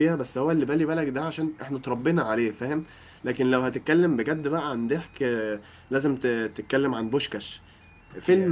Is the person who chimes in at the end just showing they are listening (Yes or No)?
Yes